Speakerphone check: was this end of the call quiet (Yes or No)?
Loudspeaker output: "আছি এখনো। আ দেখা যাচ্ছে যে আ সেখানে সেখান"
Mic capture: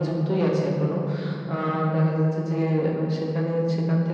Yes